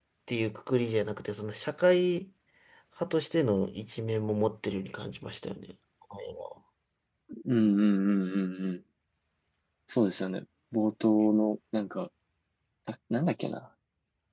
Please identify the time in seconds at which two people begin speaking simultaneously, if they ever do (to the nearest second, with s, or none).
none